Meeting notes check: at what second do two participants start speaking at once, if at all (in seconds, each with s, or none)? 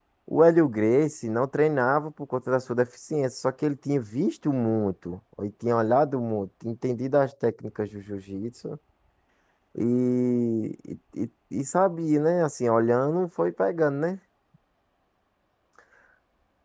none